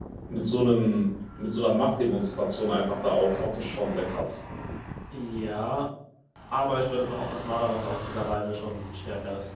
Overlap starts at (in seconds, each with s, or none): none